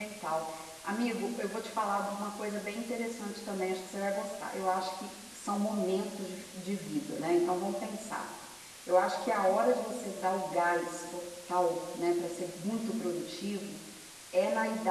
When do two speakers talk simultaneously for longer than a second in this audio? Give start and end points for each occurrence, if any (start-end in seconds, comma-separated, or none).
none